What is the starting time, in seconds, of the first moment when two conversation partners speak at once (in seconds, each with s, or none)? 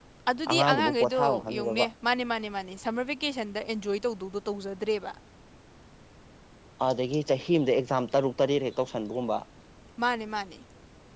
0.5 s